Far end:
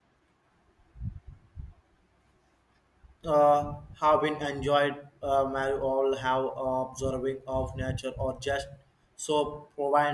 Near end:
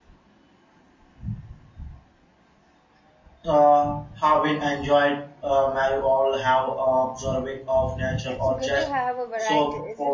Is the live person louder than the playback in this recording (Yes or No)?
No